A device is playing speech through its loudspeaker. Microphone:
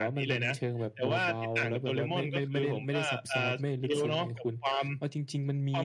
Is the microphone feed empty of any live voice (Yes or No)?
Yes